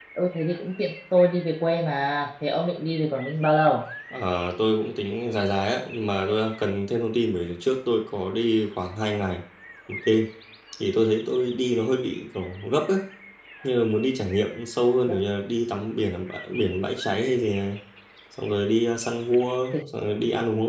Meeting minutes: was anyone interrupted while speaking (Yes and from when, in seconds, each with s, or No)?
No